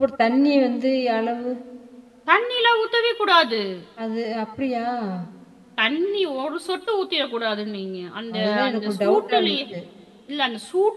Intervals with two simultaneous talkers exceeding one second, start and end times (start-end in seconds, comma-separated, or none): 8.4-9.6